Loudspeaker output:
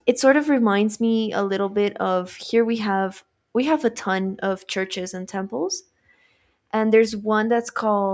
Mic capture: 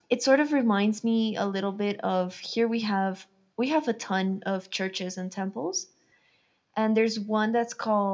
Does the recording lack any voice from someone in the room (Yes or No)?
Yes